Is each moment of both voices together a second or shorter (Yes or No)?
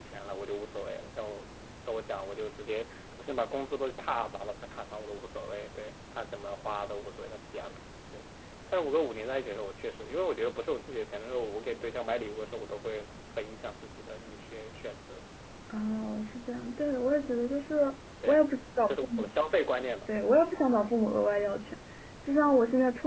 Yes